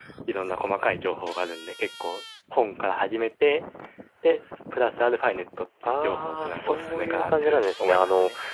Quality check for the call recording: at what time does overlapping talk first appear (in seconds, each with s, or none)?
5.8 s